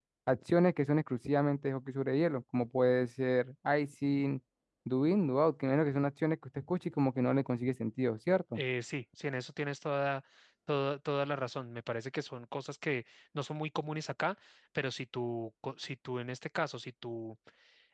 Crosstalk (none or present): none